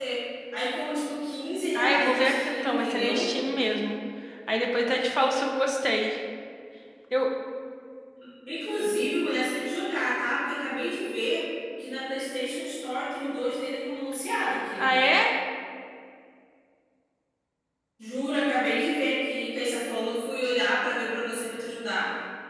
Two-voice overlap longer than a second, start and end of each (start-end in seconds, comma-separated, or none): 1.8-3.3